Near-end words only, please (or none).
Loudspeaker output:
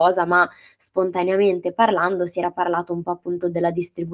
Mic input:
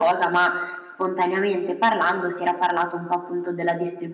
none